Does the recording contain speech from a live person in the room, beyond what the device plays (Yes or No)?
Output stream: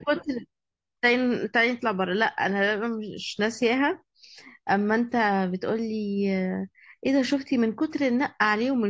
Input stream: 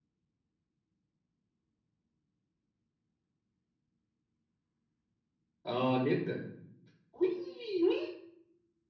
Yes